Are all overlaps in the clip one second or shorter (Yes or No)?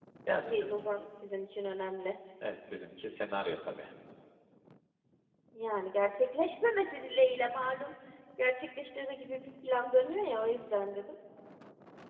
Yes